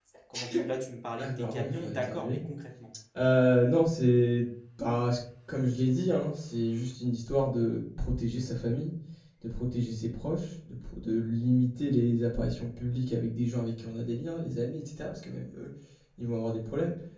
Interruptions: present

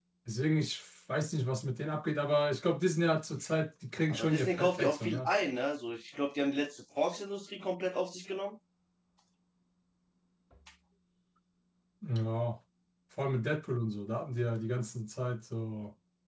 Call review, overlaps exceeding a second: present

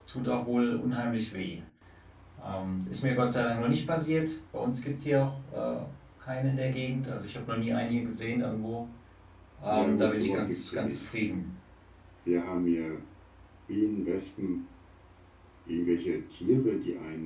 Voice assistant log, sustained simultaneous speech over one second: present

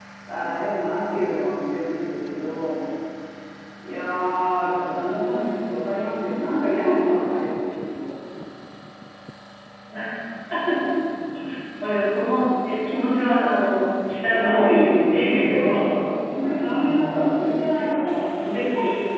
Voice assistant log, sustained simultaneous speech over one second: present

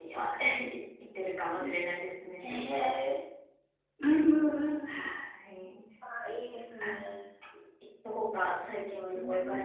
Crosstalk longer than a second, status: none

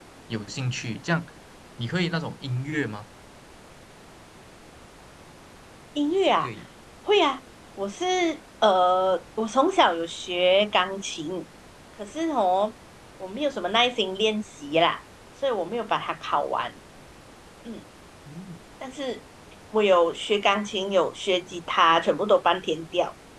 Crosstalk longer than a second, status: none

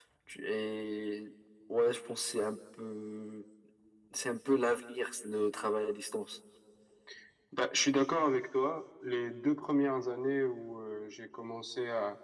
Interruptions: none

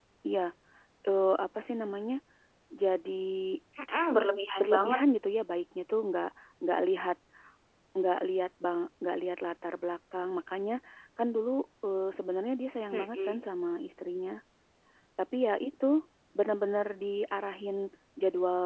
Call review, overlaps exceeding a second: none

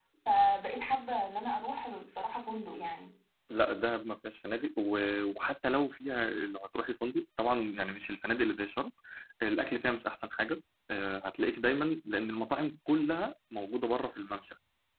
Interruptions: none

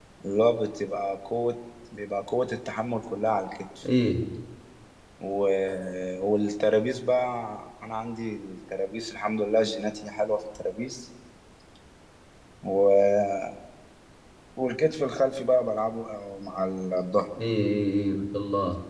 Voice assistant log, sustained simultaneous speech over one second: none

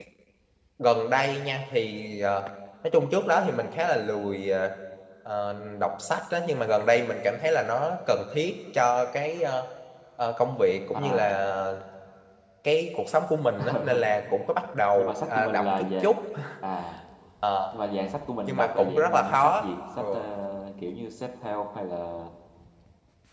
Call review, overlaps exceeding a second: present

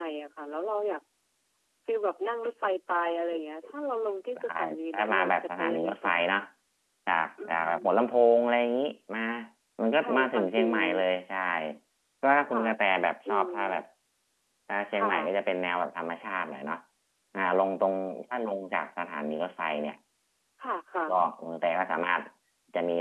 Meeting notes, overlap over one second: present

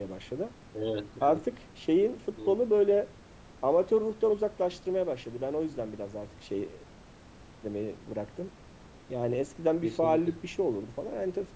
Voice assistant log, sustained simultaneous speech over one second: none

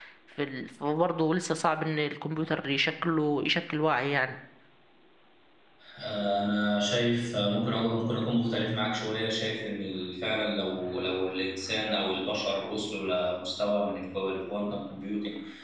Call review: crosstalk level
none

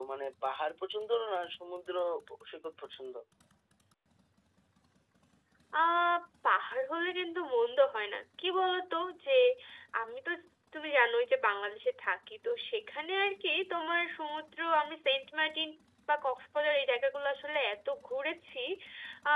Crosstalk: none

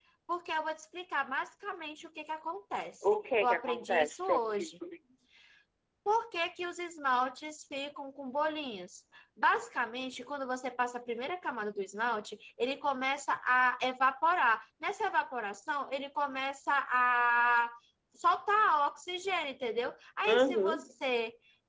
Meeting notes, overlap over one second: present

